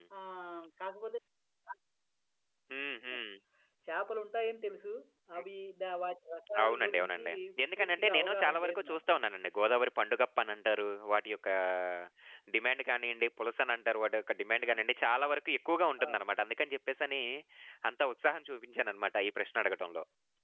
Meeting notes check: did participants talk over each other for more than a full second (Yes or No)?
Yes